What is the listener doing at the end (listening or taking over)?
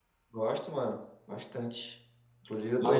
listening